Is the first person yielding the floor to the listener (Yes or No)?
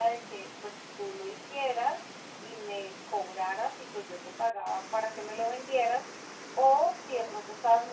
No